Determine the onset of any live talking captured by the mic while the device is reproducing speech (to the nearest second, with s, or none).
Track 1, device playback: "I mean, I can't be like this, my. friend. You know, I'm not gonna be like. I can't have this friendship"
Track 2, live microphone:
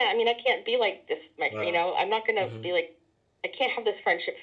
1 s